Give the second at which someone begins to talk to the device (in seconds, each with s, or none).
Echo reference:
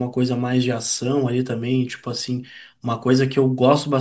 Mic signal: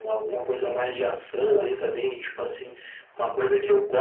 none